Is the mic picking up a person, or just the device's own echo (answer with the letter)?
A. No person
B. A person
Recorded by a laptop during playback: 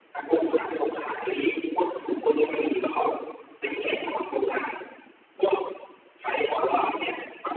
A